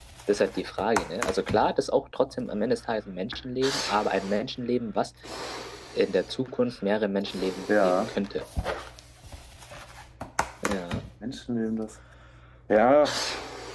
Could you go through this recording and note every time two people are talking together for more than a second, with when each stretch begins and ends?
none

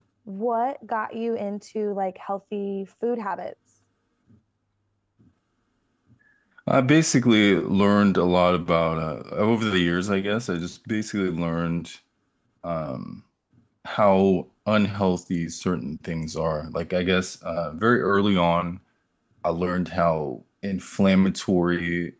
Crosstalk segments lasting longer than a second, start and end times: none

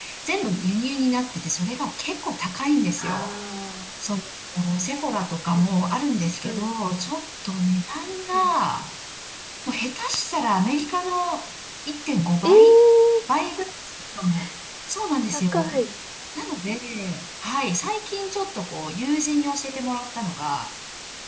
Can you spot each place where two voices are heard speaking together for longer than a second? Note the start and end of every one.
none

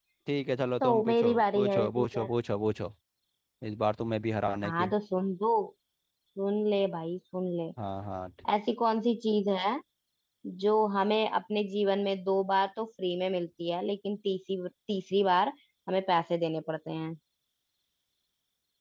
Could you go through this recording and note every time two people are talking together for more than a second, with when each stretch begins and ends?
0.8-2.3

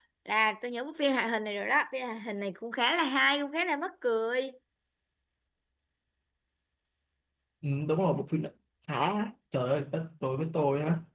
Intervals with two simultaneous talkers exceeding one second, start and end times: none

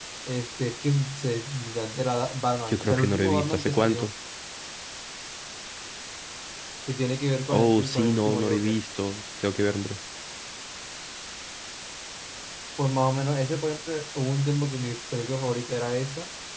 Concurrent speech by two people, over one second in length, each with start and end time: 2.7-4.1, 7.5-8.8

